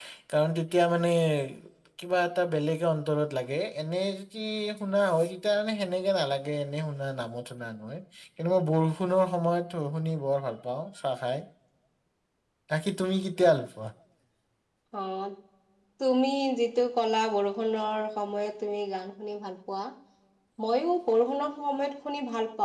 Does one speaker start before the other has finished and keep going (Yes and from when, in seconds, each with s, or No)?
No